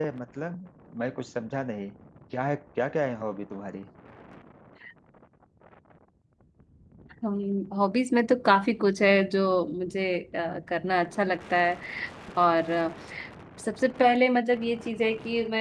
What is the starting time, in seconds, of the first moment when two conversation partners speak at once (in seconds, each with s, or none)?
none